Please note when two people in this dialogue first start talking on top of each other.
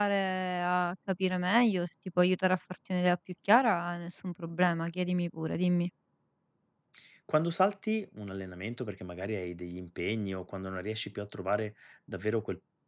none

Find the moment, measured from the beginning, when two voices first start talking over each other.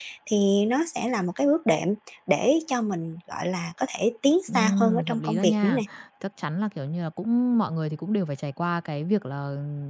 4.5 s

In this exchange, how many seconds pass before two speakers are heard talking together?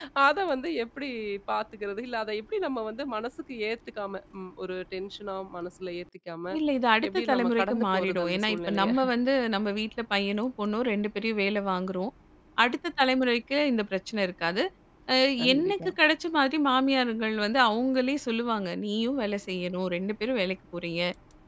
7.1 s

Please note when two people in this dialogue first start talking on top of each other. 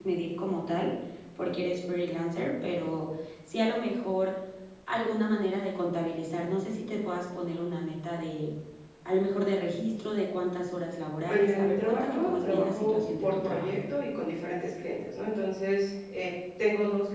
11.3 s

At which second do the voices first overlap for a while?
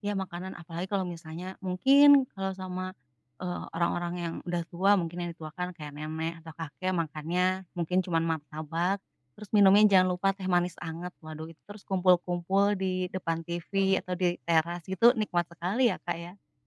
none

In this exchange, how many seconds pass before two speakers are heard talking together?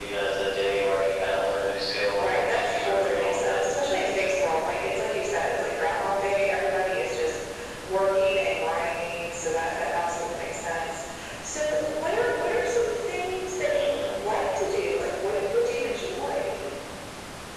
2.2 s

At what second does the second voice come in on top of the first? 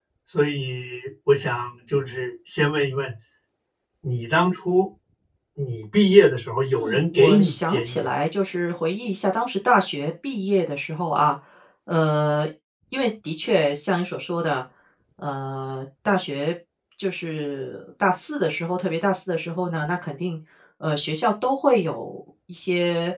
6.8 s

